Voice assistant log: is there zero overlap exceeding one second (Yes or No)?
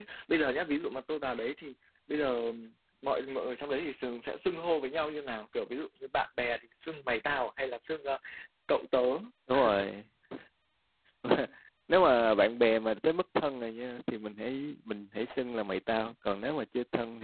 Yes